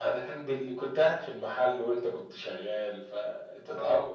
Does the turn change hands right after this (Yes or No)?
No